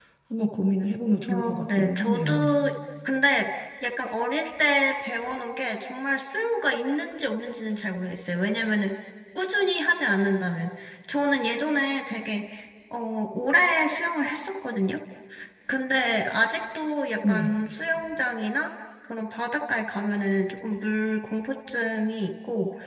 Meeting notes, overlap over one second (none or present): present